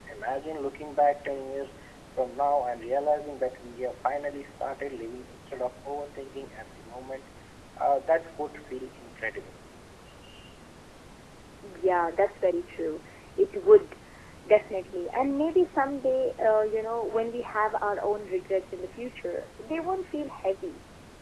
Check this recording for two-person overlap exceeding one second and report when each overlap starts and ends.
none

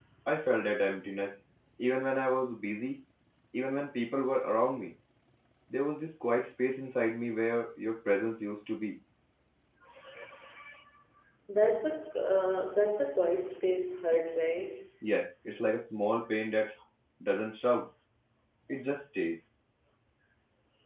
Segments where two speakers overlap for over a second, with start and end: none

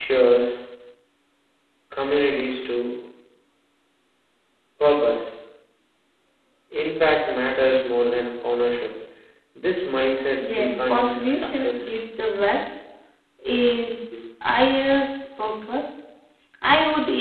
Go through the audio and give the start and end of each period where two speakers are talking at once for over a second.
10.4-11.9

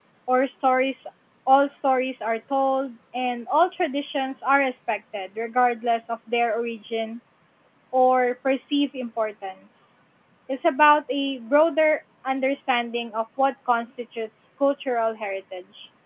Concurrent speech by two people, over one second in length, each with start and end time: none

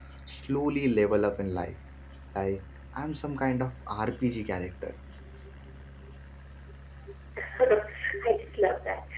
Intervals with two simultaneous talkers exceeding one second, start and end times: none

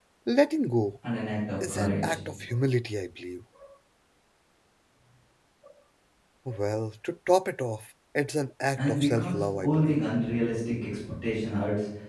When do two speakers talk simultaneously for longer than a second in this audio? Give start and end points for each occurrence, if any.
8.8-10.0

